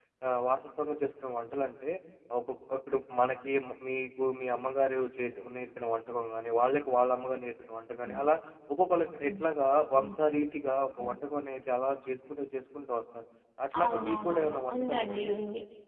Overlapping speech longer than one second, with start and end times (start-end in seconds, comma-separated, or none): 13.8-15.3